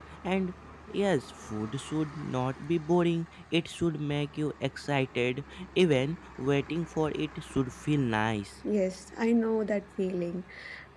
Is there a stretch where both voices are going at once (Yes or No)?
No